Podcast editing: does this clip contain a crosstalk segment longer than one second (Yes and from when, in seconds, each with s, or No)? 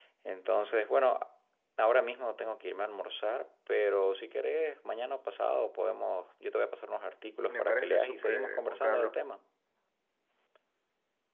Yes, from 7.5 s